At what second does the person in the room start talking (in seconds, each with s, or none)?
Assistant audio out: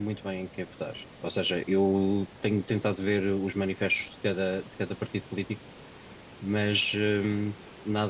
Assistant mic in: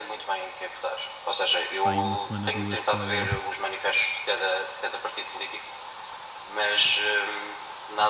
1.8 s